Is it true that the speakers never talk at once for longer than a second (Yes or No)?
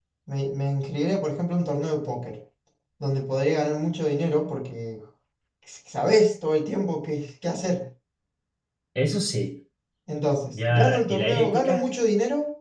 No